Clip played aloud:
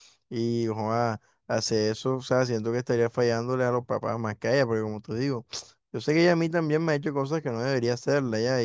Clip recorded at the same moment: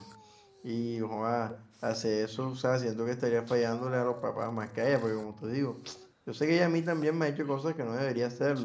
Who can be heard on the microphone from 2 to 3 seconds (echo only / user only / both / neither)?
echo only